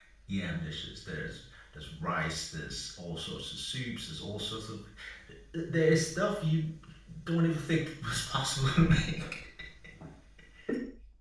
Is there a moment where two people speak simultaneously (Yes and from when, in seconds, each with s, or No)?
No